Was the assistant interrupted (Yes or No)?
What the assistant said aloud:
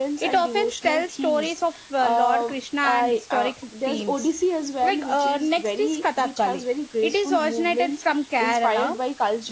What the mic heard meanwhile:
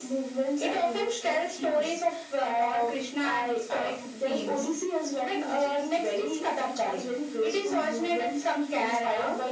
No